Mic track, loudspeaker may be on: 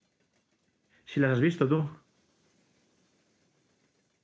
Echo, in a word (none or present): none